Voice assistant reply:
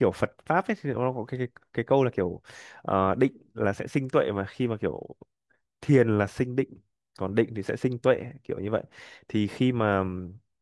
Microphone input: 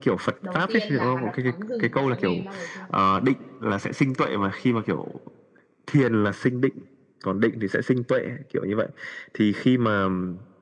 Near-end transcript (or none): đầu tiên là hoạt động tắm rừng, cậu đã nghe đến bao giờ chưa?